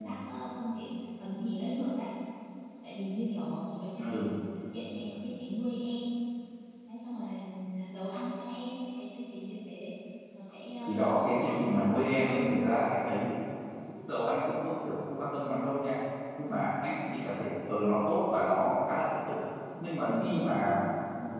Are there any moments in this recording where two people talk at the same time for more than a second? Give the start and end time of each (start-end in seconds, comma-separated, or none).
10.8-12.6